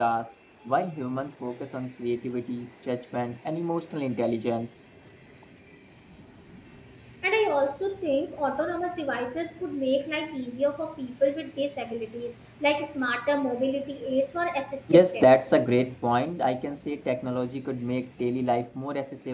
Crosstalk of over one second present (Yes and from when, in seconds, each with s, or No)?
No